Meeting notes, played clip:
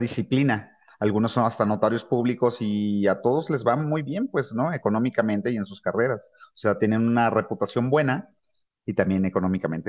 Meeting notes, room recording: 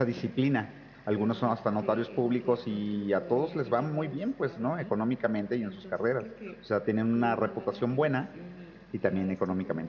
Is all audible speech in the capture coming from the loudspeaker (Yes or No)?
No